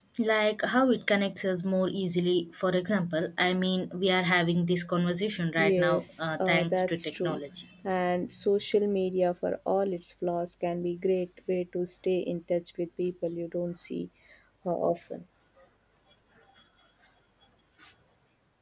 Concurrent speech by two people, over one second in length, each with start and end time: 5.6-7.4

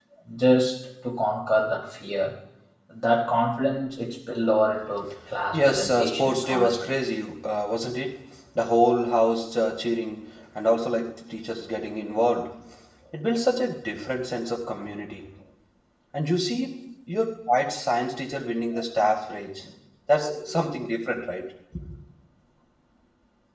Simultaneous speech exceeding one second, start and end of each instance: 5.5-6.8

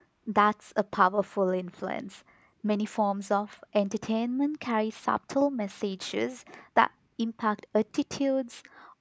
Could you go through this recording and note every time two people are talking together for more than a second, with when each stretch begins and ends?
none

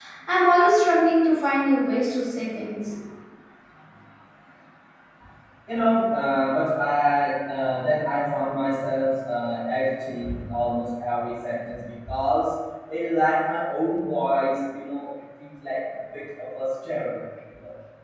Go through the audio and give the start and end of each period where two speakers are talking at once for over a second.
none

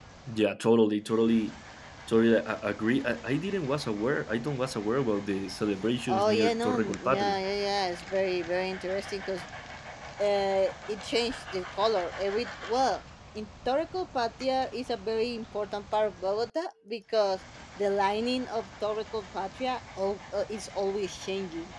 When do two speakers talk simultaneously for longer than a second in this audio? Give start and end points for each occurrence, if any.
6.1-7.4

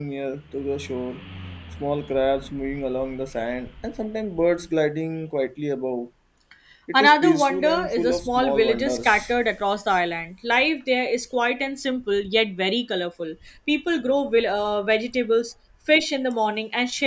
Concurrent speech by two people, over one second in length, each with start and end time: 6.9-9.1

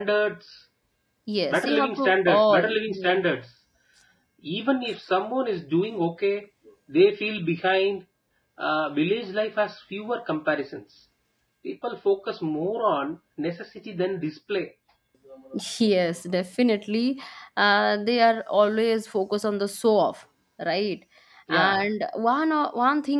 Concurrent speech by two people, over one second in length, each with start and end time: 1.5-3.2

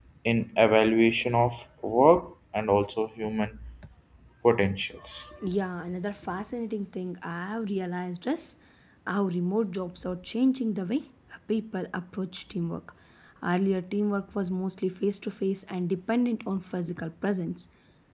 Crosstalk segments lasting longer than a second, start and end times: none

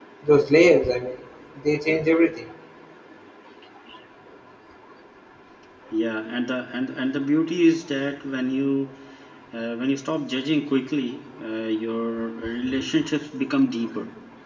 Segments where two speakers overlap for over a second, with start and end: none

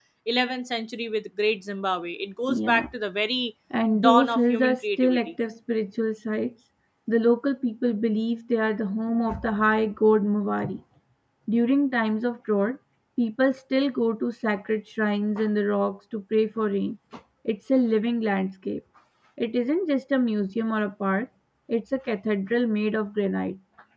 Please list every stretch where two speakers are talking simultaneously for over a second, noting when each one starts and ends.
4.0-5.2

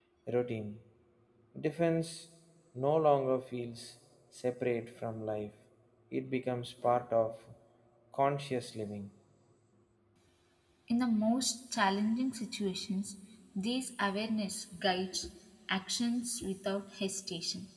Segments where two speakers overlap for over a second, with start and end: none

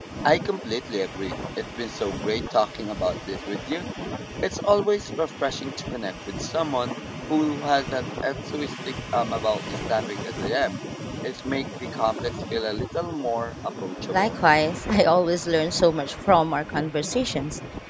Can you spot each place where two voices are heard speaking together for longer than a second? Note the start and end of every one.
none

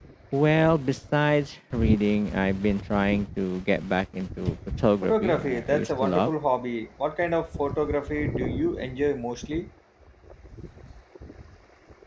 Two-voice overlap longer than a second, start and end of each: 5.0-6.3

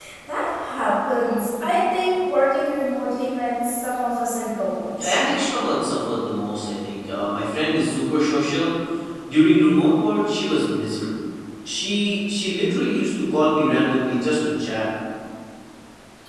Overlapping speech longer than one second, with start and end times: none

